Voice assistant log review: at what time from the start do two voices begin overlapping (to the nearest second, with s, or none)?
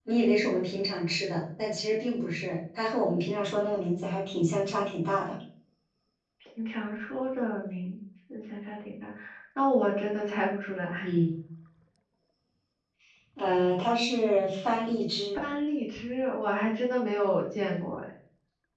none